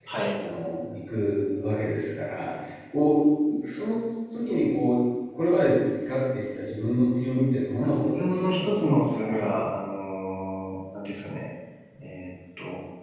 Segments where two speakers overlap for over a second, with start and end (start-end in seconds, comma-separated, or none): 7.8-9.5